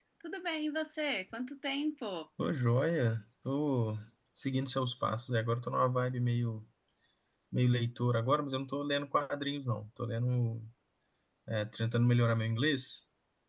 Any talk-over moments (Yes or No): No